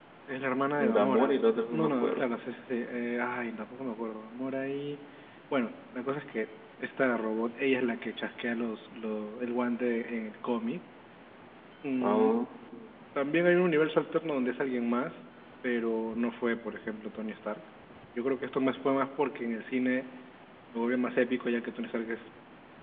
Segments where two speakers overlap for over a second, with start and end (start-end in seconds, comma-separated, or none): 0.8-2.4